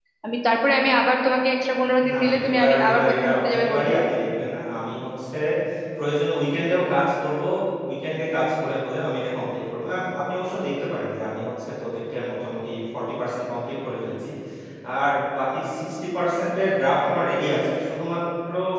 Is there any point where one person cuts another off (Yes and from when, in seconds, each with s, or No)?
Yes, from 2.0 s